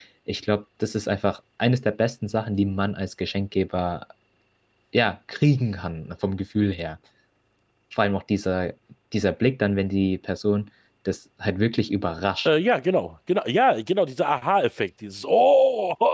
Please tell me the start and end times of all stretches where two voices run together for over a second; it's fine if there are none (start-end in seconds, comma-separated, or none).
none